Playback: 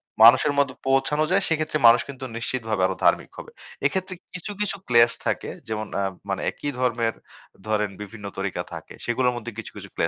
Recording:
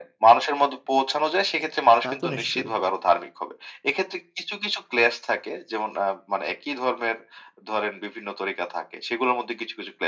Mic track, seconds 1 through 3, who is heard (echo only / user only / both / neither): both